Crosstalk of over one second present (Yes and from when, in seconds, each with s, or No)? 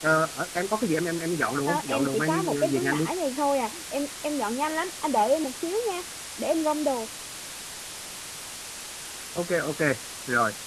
Yes, from 1.7 s